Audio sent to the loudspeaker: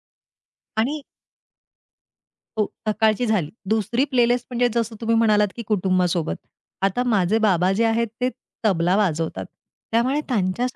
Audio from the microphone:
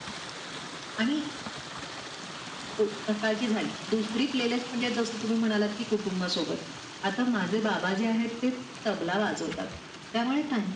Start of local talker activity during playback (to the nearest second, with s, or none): none